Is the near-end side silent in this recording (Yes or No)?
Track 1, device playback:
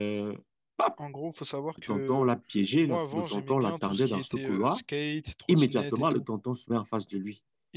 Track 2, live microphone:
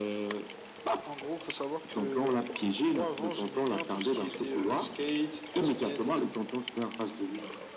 Yes